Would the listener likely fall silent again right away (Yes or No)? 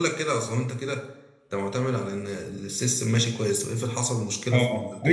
No